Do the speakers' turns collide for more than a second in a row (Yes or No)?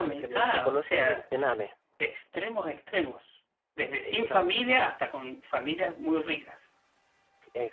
Yes